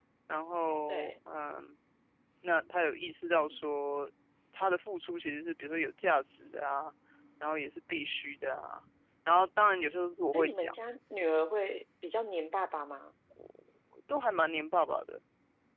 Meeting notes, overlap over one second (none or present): none